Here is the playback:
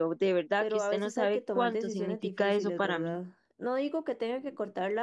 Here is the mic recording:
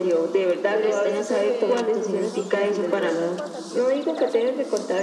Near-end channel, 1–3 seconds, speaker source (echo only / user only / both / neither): both